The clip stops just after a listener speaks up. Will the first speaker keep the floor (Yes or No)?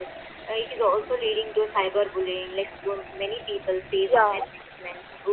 Yes